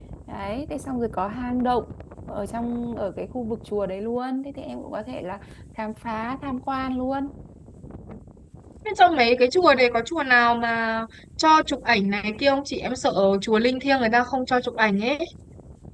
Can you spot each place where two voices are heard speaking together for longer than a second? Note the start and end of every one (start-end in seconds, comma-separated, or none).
none